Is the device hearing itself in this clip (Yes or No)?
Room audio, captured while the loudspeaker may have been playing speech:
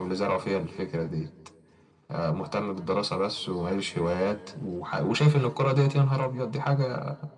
Yes